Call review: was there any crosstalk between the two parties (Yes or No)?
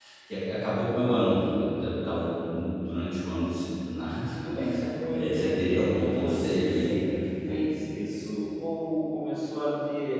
Yes